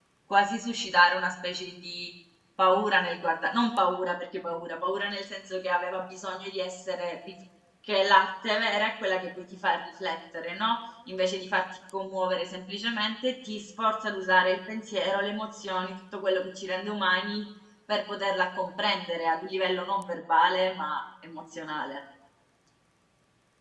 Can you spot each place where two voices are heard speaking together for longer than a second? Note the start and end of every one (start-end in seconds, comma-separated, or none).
none